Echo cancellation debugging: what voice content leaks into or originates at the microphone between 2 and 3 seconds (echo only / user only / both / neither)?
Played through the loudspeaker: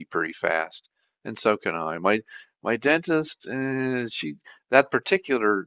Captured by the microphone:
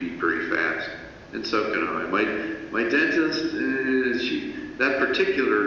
echo only